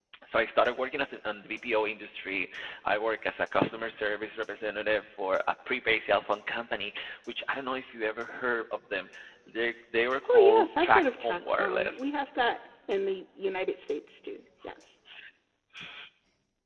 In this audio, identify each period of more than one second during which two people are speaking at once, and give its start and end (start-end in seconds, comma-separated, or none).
10.3-12.1